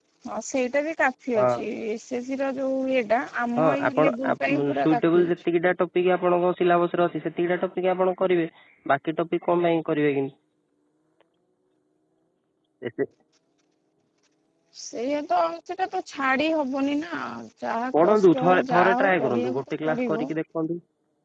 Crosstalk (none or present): present